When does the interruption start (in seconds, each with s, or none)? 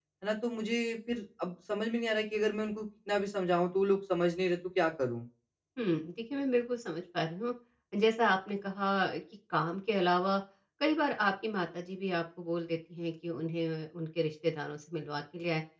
none